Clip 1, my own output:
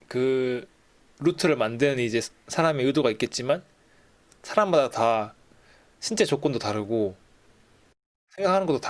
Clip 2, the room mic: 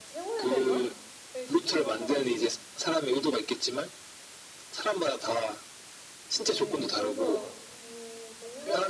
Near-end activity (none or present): present